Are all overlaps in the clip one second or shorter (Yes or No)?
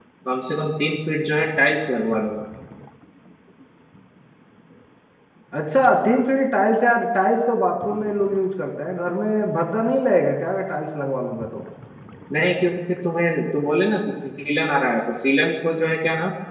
Yes